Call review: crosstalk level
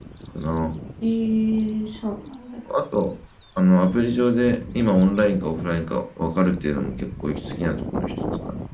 none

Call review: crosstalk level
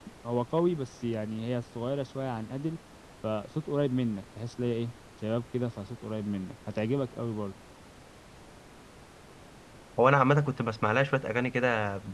none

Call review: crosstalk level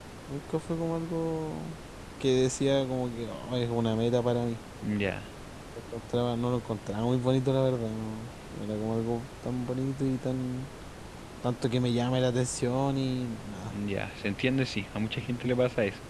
none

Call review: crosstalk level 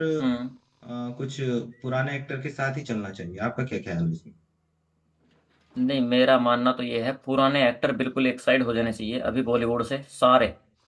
none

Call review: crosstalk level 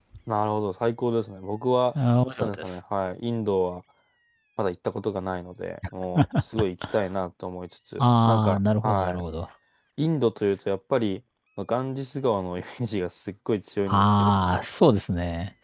present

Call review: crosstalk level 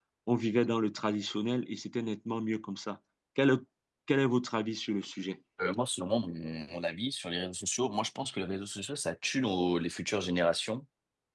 none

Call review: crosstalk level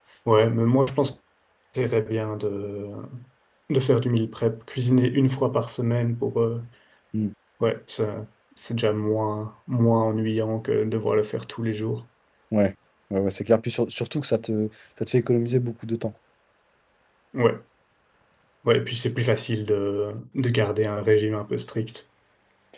none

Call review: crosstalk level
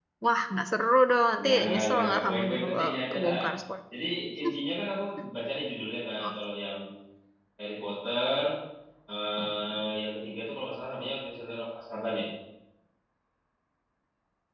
present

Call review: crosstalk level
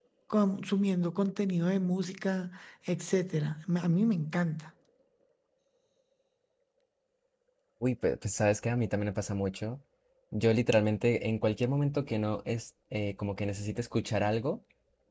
none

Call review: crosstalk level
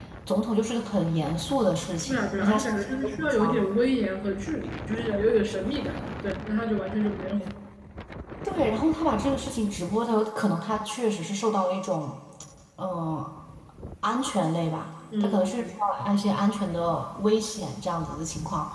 present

